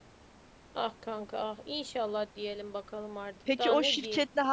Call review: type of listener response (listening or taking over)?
taking over